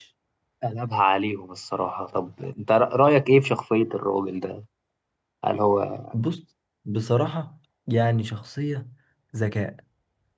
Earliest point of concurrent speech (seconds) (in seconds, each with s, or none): none